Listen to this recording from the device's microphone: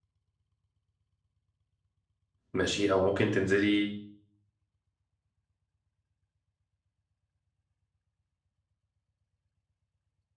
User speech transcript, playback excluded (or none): ماشي او ممكن تنزلي